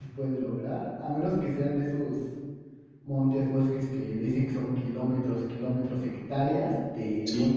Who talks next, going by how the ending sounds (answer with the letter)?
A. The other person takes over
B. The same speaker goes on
B